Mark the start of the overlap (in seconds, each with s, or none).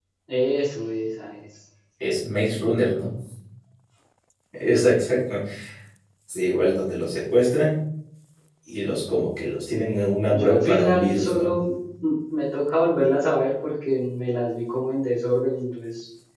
10.3 s